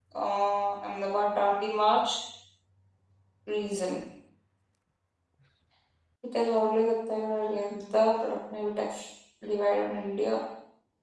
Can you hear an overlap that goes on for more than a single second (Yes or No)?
No